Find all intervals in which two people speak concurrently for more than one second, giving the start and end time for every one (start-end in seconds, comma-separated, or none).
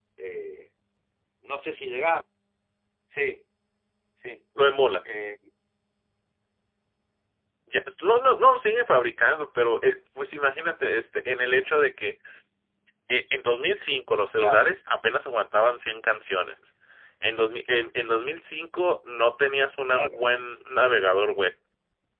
none